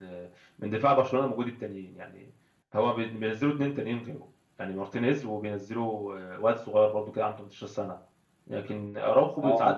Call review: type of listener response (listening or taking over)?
listening